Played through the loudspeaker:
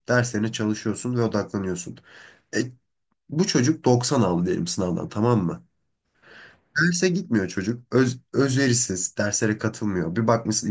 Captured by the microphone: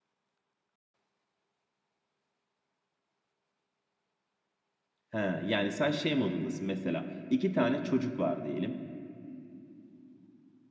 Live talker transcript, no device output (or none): He, yani sen şey modundasın mesela iki tane çocuk var diyelim.